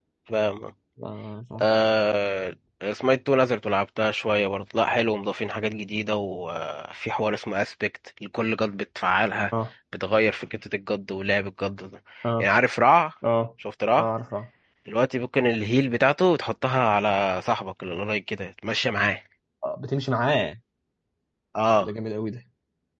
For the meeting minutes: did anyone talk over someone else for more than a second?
No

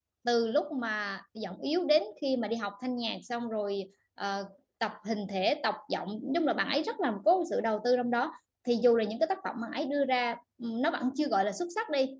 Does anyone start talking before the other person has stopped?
No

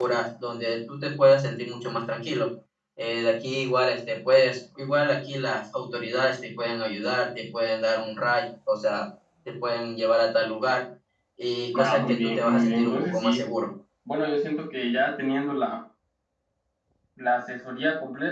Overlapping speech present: Yes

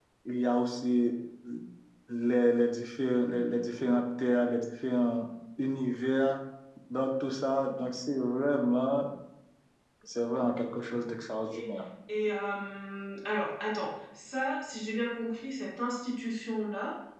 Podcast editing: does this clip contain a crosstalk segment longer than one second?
No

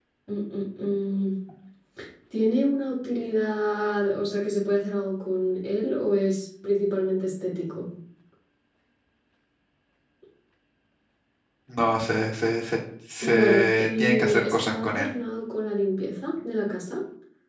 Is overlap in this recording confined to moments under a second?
No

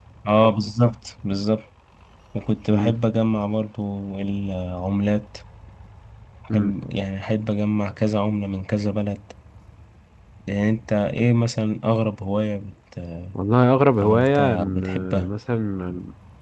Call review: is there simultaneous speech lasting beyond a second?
Yes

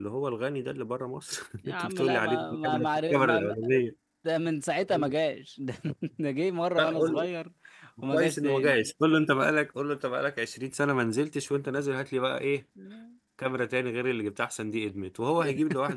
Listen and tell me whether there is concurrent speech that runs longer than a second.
Yes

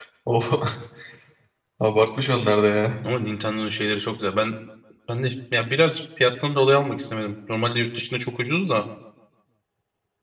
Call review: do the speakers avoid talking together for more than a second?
Yes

